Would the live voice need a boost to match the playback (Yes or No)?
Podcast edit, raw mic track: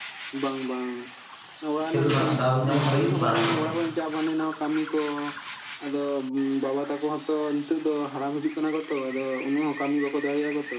No